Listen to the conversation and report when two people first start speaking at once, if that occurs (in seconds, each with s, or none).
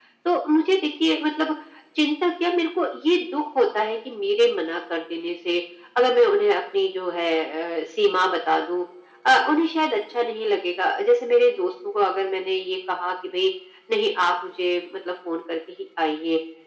none